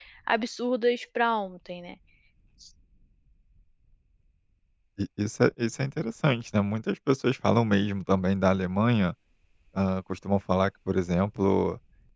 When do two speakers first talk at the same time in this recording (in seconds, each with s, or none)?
none